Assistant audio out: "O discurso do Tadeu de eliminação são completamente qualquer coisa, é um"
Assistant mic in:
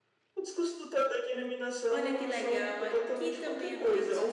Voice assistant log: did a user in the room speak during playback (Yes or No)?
Yes